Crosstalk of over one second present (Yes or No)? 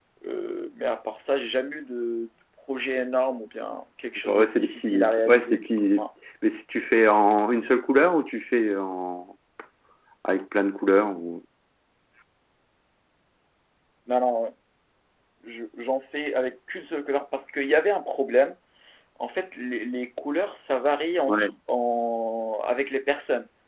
Yes